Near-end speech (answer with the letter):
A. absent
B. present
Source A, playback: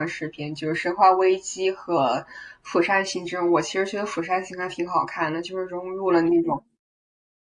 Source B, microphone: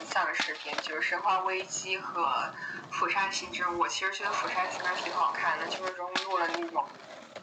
A